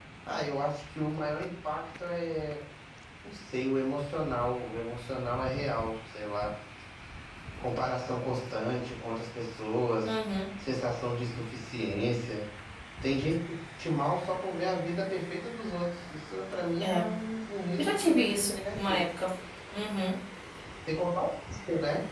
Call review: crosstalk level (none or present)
present